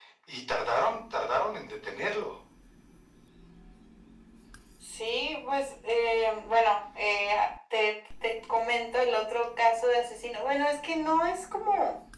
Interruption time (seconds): none

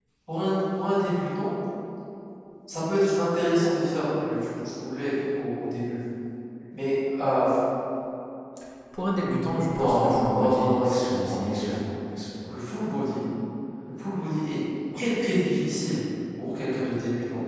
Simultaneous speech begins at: 9.7 s

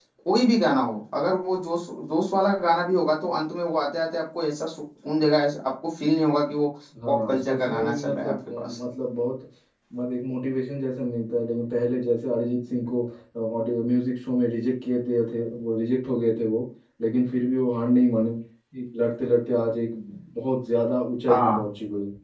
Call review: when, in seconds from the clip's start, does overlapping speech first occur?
7.1 s

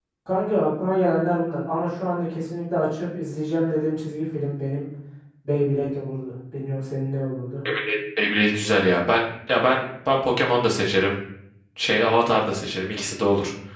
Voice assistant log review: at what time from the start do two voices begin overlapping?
none

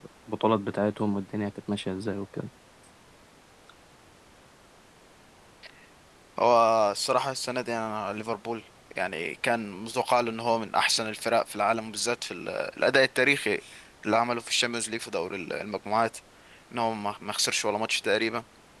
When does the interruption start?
none

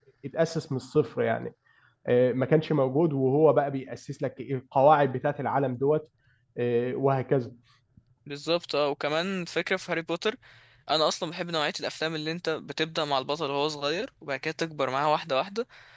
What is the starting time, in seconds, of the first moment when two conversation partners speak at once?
none

